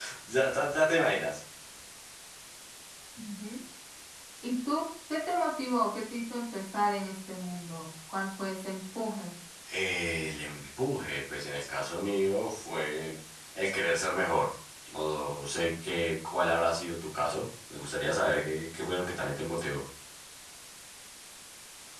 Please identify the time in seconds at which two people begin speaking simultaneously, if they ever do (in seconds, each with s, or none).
none